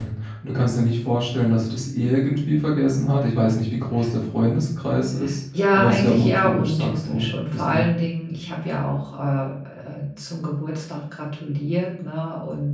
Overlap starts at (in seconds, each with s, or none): 5.7 s